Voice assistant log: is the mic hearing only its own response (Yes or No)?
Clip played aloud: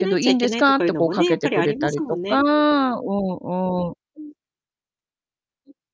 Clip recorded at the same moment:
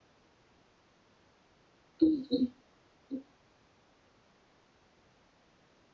No